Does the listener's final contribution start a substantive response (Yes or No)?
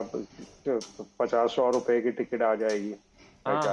Yes